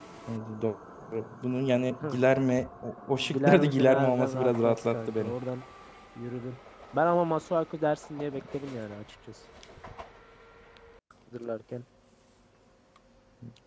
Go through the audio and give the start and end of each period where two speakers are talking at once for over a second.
3.2-5.3

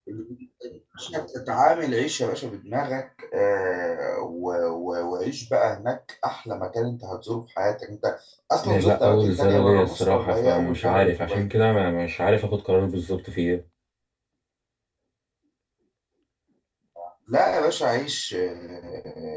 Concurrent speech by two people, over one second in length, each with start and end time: 8.6-11.4

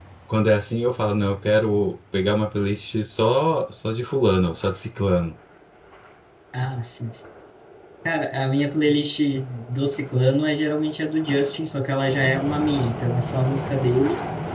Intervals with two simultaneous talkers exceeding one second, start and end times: none

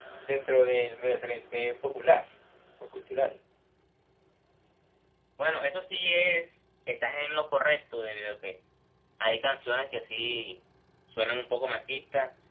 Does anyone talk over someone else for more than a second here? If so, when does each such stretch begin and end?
none

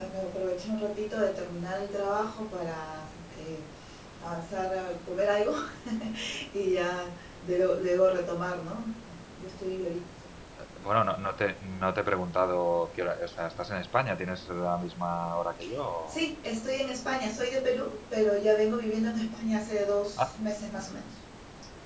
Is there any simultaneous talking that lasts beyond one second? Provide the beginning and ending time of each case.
none

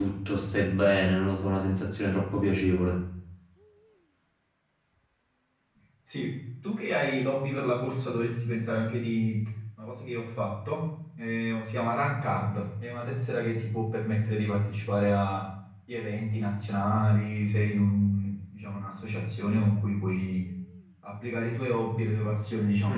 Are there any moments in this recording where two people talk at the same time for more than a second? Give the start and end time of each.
none

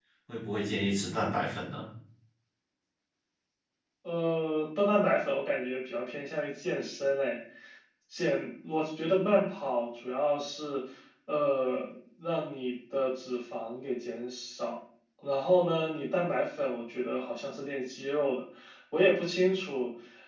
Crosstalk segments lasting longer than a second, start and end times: none

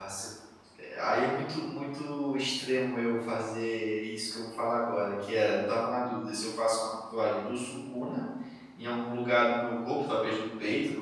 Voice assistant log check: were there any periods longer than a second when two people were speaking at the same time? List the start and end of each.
none

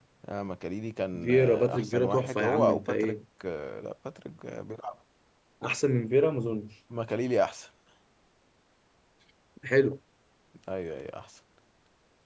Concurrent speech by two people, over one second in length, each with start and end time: 1.2-3.2

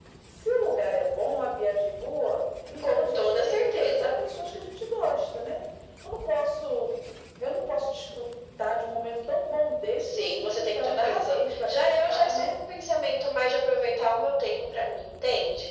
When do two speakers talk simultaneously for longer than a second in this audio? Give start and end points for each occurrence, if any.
2.9-4.1, 10.0-12.6

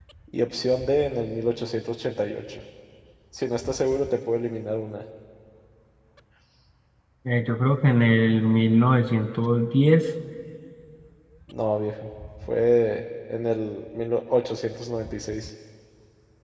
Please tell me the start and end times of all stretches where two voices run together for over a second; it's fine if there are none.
none

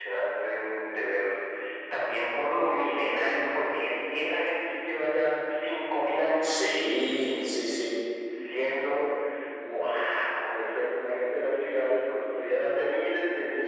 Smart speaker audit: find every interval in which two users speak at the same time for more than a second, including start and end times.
none

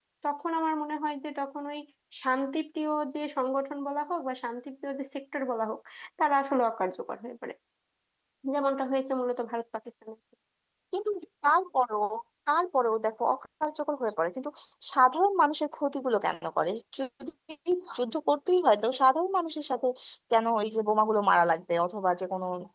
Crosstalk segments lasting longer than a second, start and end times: none

